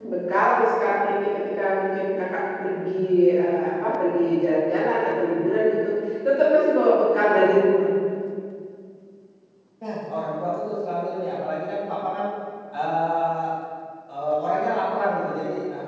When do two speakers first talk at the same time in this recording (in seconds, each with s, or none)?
none